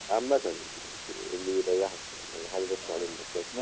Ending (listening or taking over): taking over